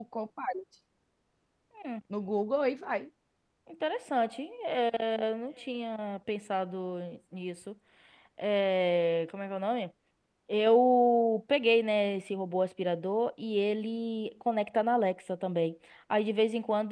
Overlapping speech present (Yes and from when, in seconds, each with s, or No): No